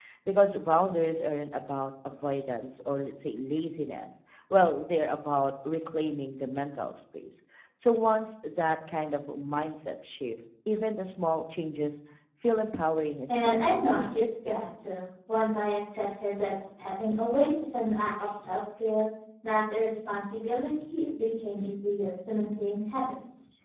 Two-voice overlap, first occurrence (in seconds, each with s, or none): 13.3 s